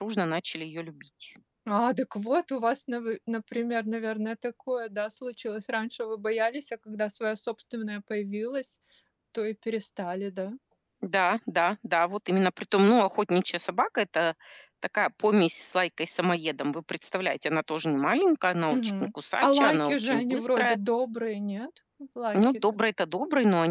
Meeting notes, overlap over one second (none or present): present